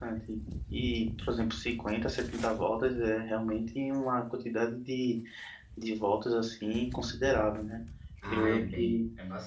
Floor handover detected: Yes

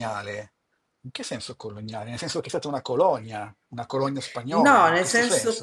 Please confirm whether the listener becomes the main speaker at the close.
Yes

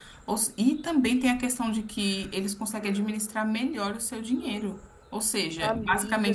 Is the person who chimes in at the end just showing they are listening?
Yes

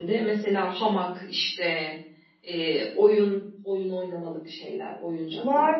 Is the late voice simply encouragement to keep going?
No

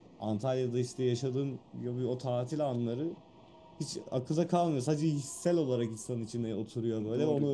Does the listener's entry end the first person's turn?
Yes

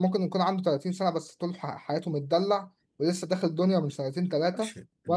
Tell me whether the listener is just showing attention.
No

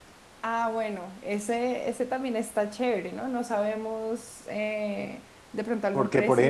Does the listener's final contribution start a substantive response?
Yes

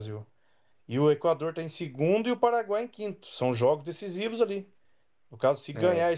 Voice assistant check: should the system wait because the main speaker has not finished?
Yes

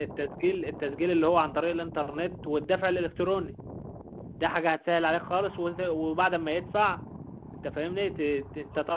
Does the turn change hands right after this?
No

